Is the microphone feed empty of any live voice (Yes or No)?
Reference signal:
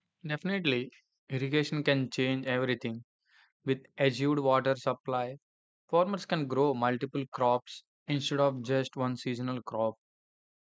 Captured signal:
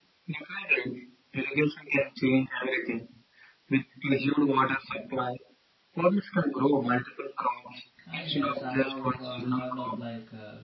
No